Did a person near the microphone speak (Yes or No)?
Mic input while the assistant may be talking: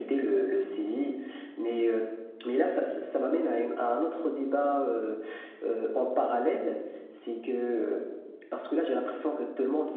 No